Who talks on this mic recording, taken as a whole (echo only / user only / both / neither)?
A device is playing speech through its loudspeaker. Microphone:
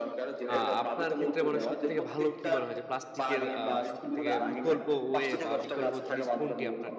both